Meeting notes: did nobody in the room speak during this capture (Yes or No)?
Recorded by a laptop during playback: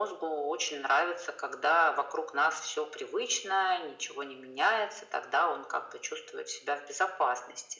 Yes